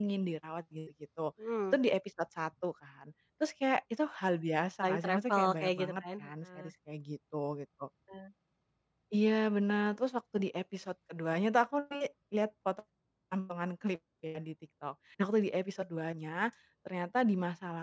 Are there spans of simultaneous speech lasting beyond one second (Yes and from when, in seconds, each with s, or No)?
Yes, from 4.8 s